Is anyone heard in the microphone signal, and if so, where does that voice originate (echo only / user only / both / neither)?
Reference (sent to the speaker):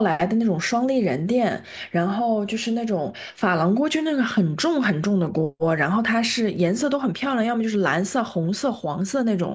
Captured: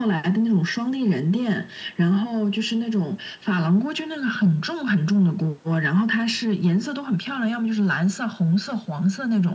echo only